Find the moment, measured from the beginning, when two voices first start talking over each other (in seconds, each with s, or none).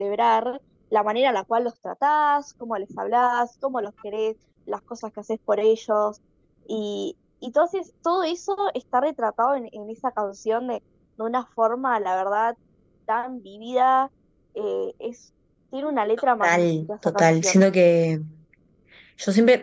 16.4 s